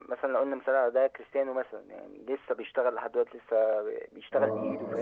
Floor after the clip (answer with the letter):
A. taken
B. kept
A